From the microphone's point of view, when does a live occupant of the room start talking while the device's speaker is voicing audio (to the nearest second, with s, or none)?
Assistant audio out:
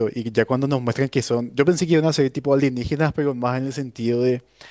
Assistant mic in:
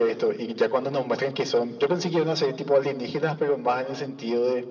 none